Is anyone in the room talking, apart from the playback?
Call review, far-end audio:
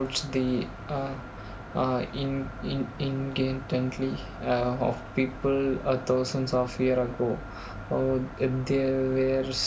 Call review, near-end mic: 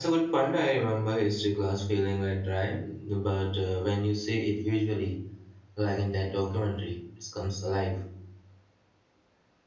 Yes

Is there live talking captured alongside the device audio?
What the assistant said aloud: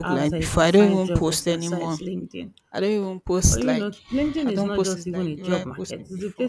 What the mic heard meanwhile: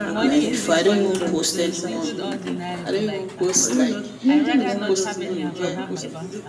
Yes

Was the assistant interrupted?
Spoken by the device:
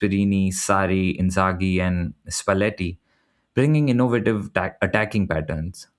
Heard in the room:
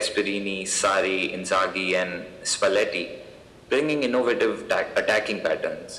No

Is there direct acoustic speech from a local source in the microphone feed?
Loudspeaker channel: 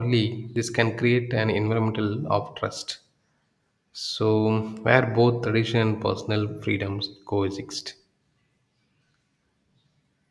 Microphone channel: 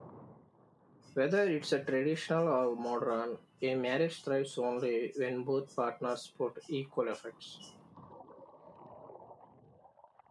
Yes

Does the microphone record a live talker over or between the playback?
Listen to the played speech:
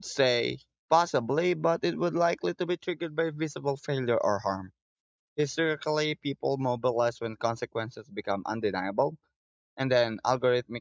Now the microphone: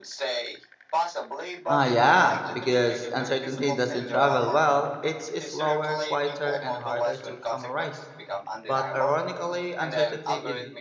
Yes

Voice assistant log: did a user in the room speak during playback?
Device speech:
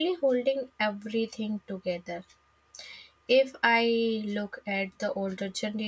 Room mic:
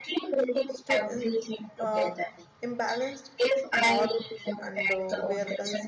Yes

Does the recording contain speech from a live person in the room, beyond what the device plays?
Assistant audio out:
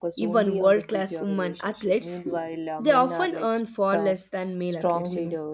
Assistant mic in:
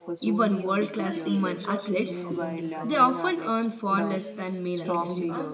Yes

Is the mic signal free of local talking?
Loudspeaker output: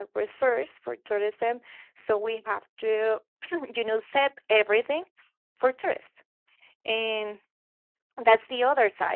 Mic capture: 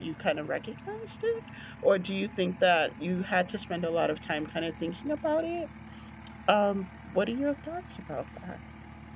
No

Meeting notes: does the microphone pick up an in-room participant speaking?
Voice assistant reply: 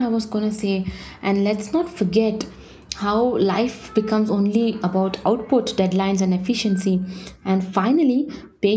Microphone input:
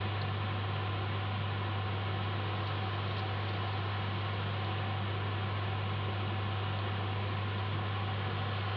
No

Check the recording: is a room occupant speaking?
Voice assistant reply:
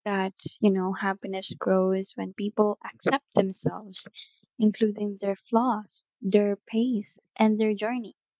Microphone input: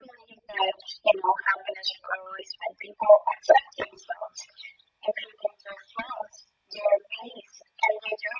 No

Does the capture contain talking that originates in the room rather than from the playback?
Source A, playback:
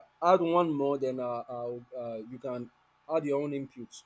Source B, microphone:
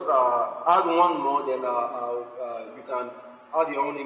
No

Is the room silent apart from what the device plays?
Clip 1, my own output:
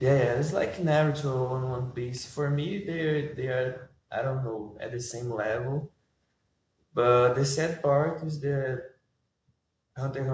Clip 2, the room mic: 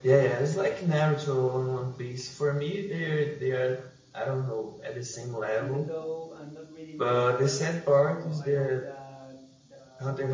No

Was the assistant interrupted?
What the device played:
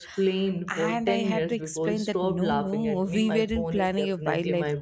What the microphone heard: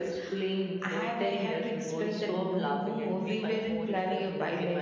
No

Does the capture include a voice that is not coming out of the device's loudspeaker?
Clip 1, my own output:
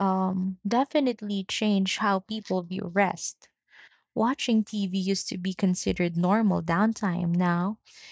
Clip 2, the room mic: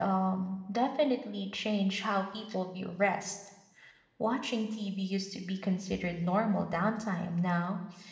No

